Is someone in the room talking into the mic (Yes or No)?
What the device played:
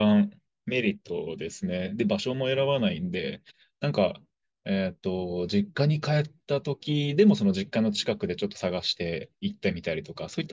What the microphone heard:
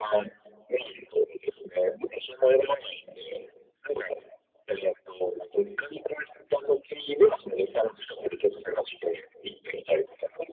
No